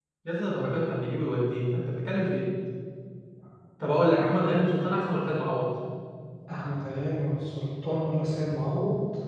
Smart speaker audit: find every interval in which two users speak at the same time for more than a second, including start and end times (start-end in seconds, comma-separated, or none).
none